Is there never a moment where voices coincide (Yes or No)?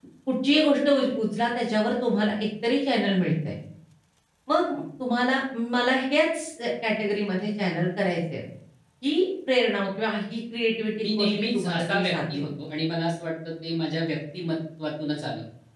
No